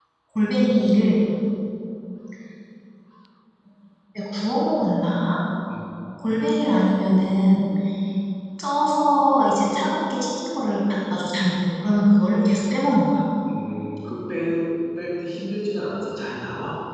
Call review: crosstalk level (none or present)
none